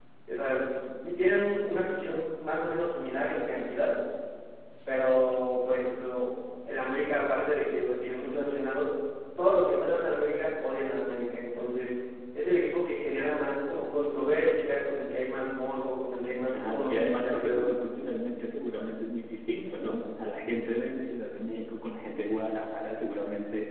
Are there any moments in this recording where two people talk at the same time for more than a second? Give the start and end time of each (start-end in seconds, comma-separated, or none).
16.5-17.7